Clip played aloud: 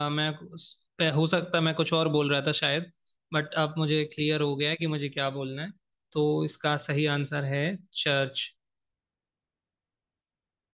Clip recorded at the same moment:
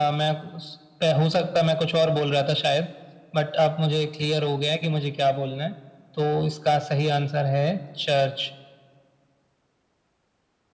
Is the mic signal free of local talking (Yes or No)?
Yes